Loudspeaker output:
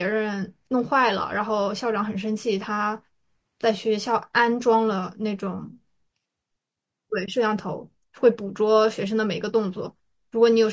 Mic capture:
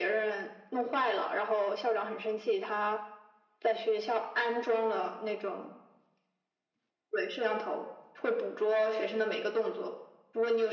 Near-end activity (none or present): none